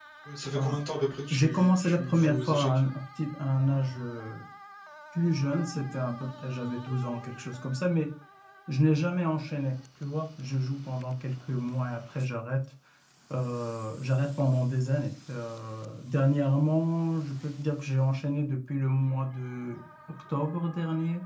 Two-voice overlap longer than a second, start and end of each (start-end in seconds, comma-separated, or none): 1.3-2.8